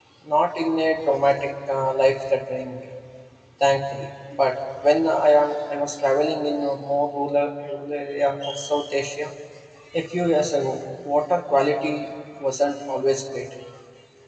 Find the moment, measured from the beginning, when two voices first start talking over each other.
none

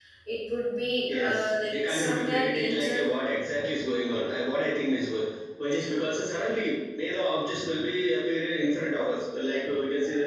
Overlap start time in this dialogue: 1 s

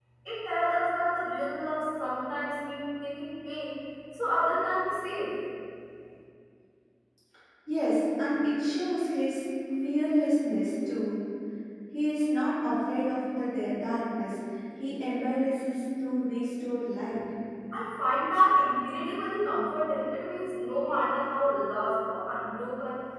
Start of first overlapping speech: none

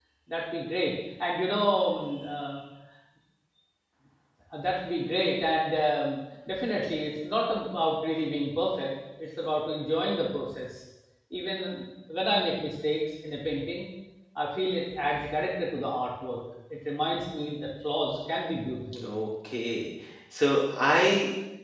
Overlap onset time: none

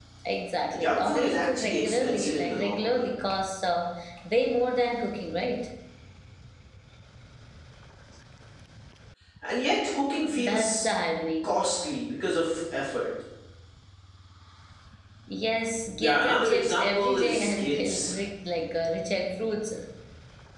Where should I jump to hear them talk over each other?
1 s

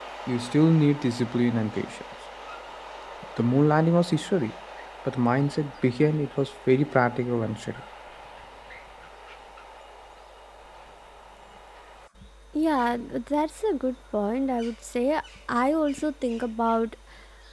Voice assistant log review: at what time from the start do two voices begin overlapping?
none

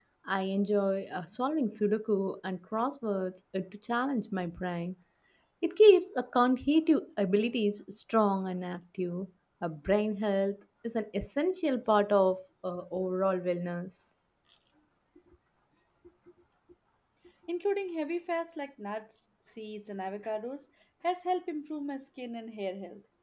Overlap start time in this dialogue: none

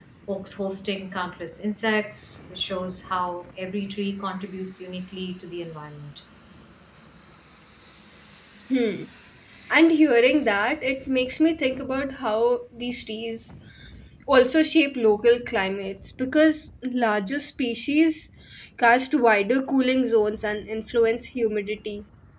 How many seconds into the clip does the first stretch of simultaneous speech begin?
none

